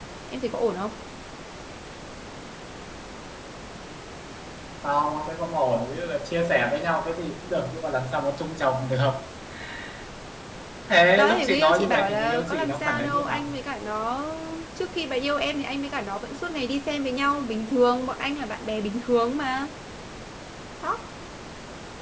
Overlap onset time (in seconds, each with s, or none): 11.2 s